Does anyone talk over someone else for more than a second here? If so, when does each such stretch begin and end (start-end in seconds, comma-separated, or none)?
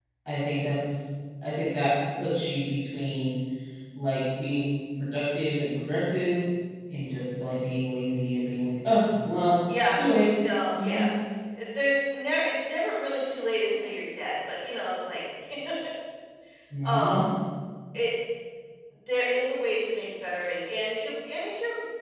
none